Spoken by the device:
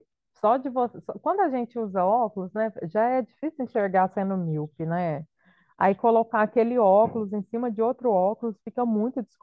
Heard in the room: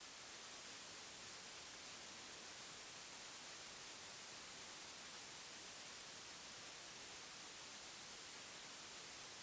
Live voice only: none

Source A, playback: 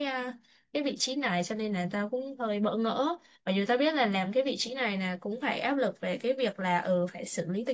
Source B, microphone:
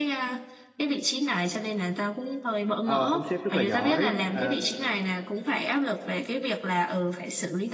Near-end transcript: Ờ, ông sếp rất là giỏi ờ,

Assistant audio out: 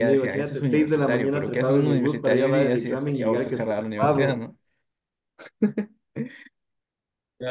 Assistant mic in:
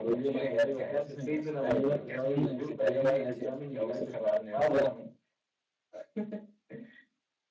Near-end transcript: none

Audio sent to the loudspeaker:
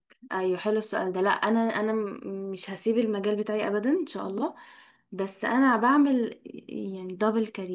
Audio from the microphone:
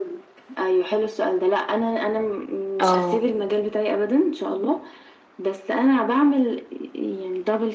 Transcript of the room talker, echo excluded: اه

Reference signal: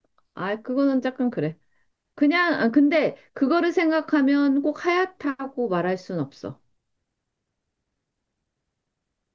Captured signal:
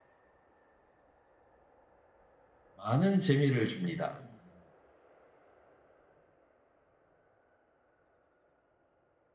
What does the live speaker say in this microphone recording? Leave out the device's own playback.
많은 재미를 줍니다.

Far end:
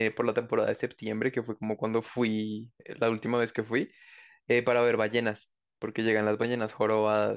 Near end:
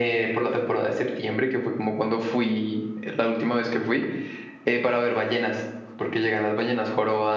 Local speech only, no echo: none

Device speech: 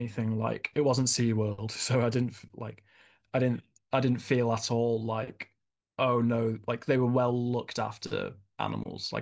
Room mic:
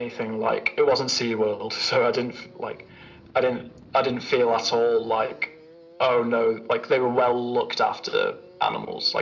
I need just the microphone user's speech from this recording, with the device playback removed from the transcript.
none

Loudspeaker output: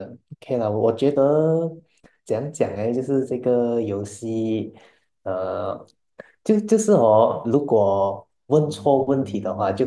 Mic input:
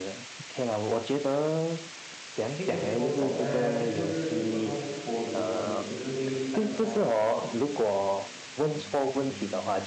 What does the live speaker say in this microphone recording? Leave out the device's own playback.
可以有很多种啊，就是有时候玻璃门也是会看得到自己啊，

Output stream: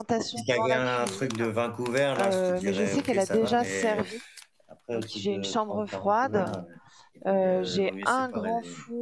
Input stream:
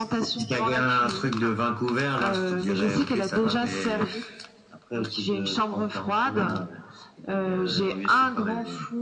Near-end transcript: none

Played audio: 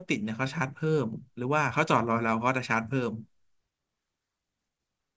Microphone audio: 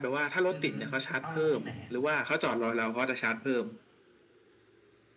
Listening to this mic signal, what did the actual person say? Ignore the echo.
อือฮึเอ้าแล้วเขาทิ้งไหนอ่ะ

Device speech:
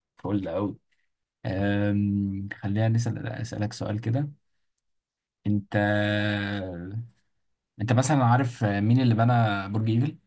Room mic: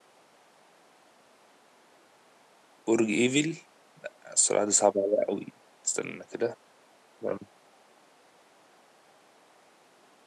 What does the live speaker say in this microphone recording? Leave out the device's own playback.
برج ايفل السرعة دي صعبة عليا قوي استنى كده مم.

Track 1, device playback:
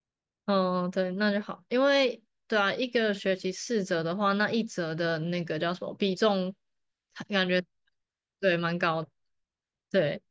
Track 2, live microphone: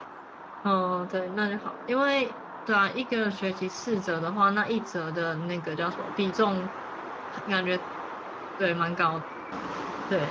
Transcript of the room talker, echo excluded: none

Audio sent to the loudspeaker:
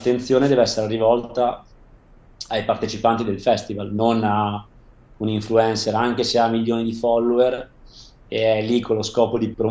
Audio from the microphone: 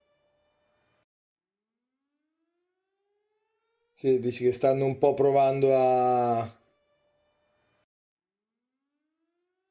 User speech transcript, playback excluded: Sì, dici che stanno un po' provando a,

